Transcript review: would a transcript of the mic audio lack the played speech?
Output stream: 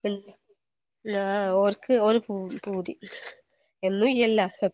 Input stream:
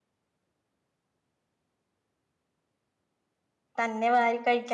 Yes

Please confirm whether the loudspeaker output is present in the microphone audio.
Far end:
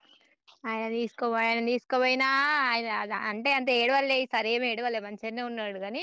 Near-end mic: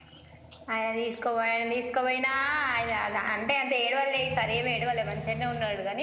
Yes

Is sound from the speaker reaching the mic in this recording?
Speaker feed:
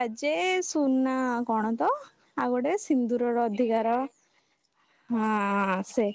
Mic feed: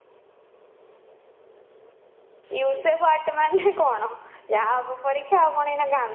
No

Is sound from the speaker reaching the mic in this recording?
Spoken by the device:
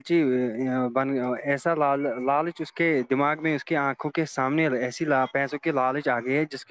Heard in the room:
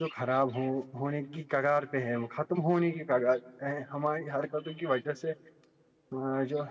No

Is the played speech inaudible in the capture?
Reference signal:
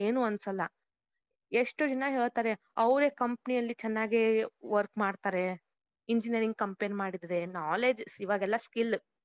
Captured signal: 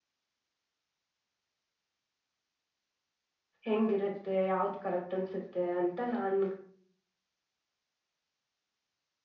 Yes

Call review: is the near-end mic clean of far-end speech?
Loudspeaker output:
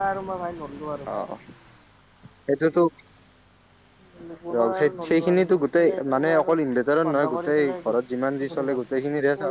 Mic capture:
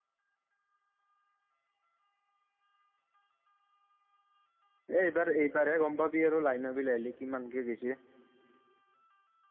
Yes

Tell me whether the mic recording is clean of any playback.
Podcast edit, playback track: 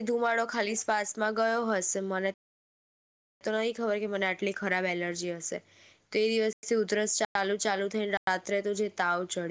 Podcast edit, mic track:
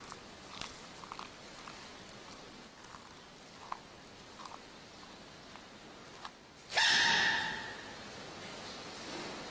Yes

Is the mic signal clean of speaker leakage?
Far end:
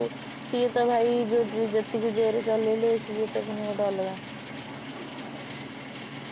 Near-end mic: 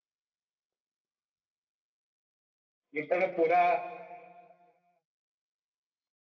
Yes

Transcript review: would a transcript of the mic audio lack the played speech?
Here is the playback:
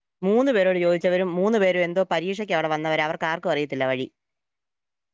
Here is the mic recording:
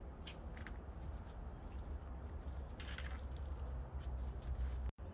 Yes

